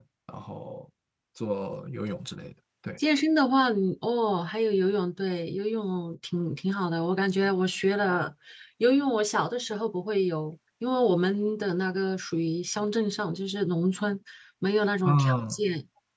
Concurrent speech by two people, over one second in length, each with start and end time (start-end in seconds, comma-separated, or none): none